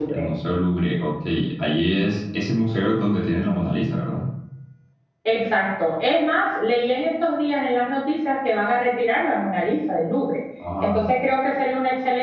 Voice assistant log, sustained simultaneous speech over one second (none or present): none